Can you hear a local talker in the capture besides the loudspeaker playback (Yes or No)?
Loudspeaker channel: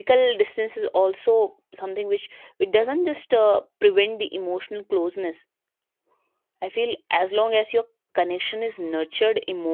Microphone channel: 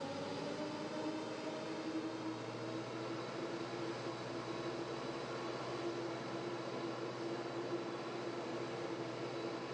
No